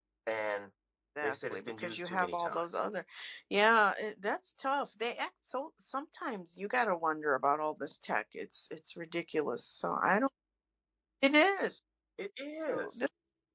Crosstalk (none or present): present